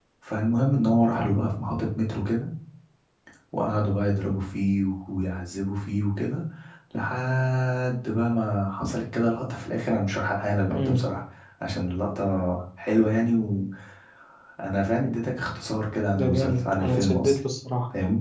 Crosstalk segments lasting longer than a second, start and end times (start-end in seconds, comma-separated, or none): 16.2-17.4